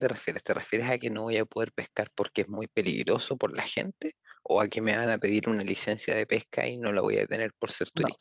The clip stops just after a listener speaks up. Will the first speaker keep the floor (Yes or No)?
No